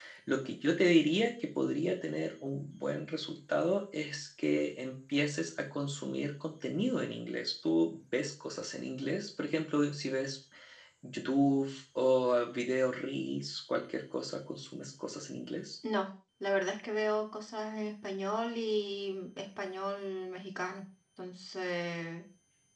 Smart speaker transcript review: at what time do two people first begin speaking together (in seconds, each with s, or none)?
none